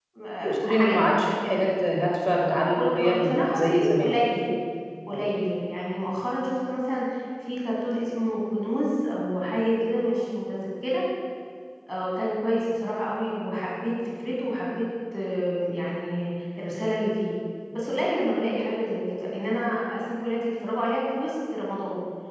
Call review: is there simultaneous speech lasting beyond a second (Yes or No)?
Yes